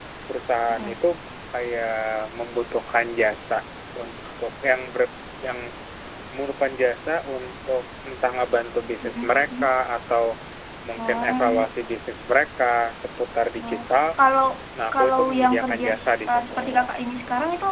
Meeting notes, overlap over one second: present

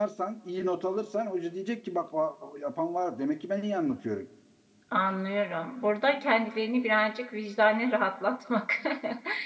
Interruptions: none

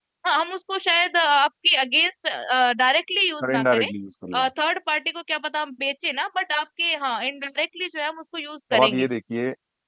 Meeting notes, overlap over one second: none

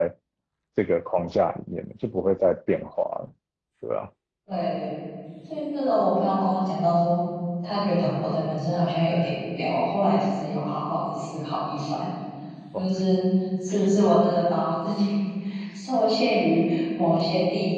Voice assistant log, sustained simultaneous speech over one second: none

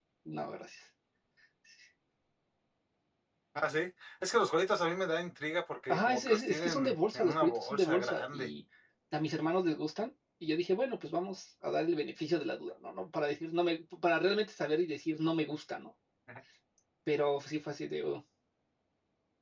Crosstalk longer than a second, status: present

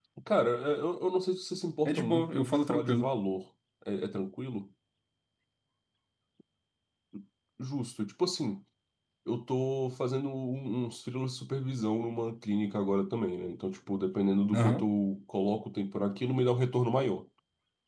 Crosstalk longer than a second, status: present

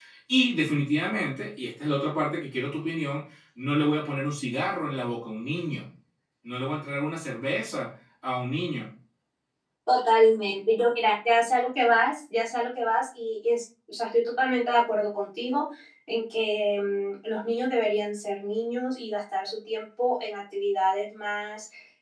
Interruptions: none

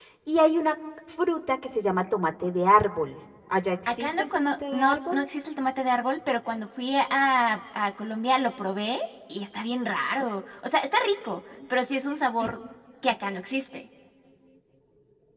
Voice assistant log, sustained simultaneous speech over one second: present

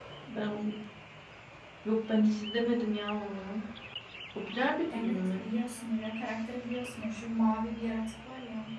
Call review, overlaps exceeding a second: none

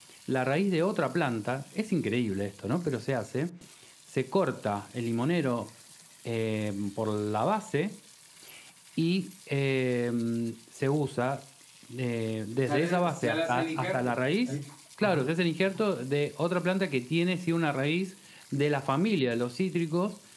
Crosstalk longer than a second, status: present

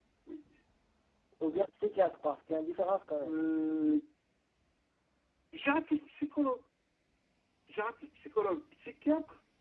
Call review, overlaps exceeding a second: none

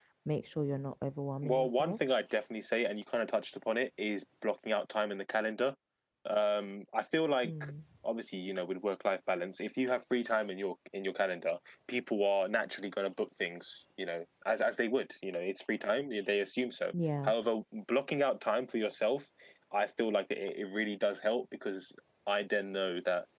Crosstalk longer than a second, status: none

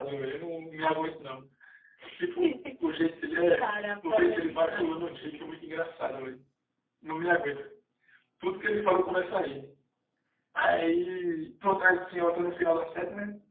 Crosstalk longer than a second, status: present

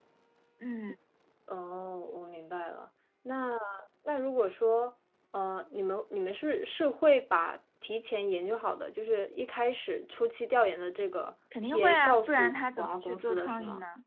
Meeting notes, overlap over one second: present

